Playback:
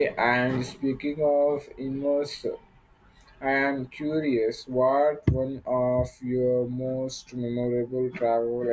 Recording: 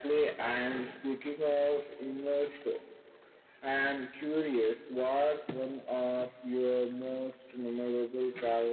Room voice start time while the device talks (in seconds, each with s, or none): none